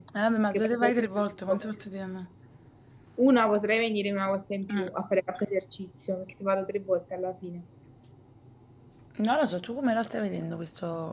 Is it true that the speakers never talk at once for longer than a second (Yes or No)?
Yes